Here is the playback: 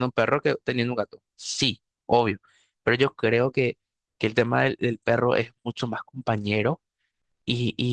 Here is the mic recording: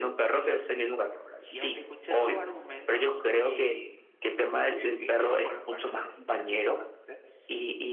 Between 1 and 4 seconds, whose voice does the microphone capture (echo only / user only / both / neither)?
both